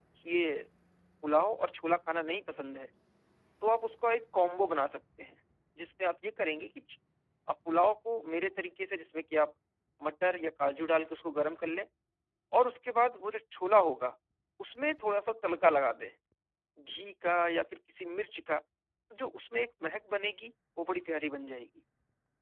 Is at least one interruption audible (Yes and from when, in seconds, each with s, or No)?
No